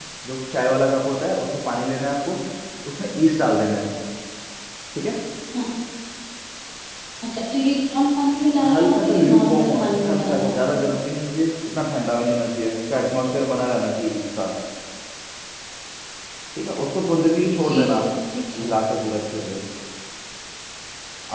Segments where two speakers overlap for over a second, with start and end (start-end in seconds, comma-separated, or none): 8.7-10.8